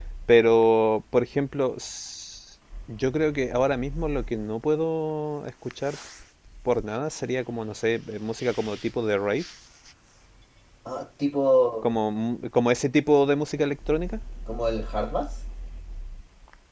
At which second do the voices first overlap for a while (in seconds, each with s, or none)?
none